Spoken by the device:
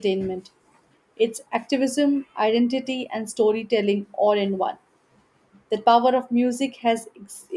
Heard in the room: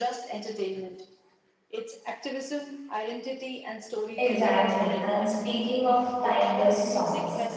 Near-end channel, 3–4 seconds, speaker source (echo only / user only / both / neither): echo only